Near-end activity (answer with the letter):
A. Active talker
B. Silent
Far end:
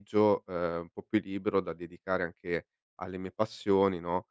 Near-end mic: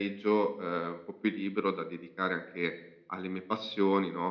B